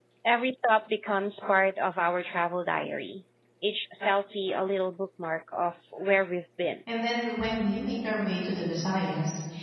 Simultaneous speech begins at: none

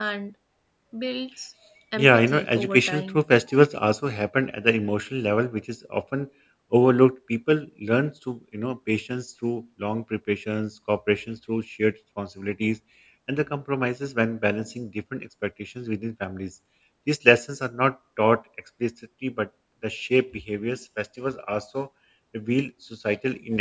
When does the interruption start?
2.0 s

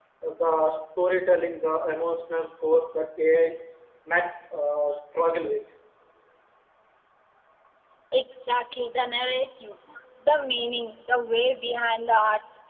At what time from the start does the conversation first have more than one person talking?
none

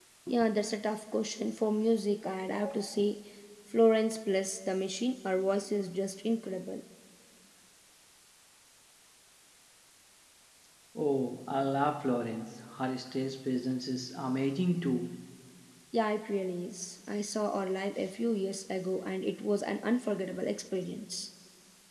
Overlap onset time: none

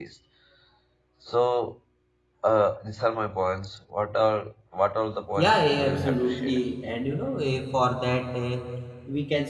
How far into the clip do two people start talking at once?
5.4 s

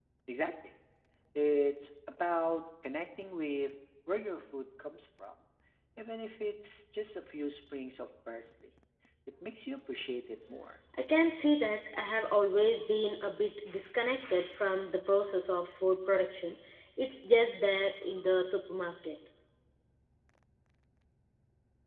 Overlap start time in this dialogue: none

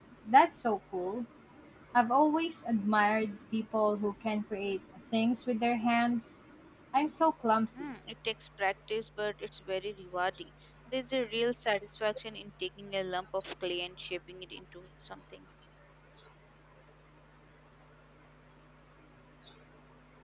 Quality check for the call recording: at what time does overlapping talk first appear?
none

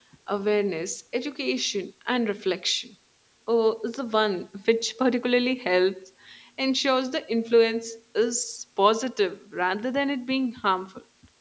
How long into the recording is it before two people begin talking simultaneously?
none

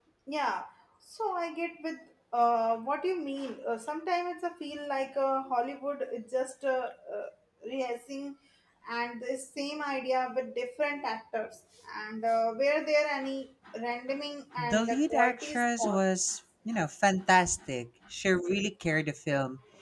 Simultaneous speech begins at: 14.6 s

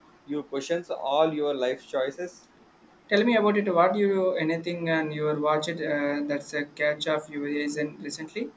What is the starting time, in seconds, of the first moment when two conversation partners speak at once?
none

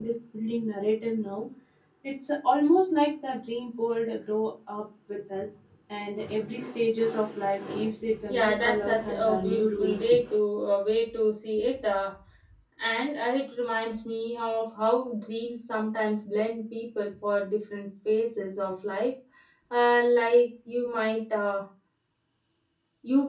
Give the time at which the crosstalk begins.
8.3 s

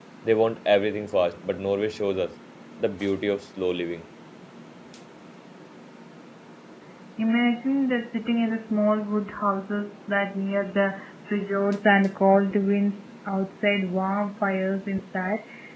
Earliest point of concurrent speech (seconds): none

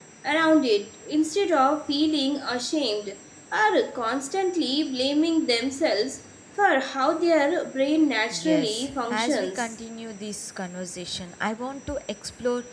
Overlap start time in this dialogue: 8.3 s

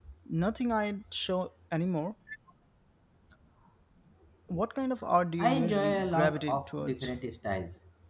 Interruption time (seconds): 5.4 s

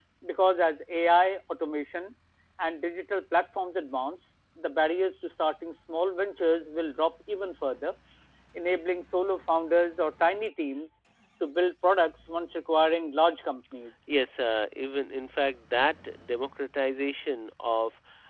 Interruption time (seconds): none

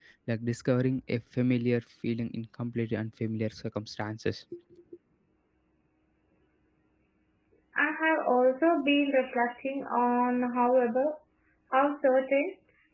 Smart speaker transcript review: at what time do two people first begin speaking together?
none

